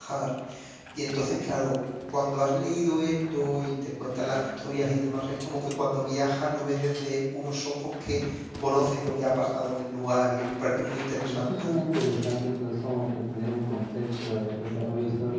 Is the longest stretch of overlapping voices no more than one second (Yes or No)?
Yes